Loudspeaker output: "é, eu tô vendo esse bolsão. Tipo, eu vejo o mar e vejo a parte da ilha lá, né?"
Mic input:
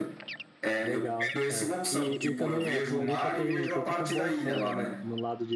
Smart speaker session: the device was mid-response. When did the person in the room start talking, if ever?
1 s

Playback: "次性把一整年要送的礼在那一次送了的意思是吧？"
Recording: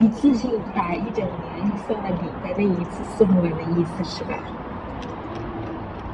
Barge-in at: none

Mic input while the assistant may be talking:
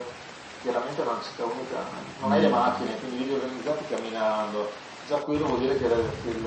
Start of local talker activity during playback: 2 s

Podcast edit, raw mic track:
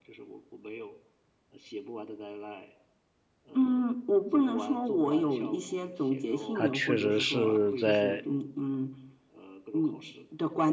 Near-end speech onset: 7 s

